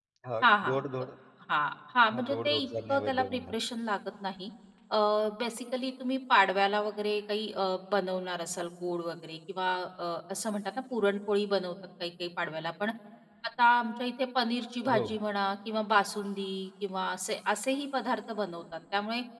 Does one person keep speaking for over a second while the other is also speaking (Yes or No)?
Yes